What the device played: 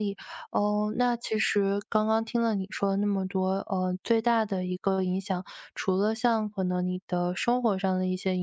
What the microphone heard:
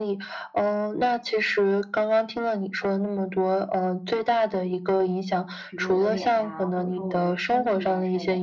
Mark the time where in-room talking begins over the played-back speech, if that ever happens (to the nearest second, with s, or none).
6 s